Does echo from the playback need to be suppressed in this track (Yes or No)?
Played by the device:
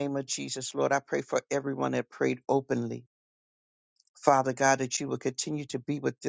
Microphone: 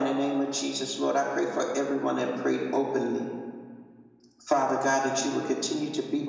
Yes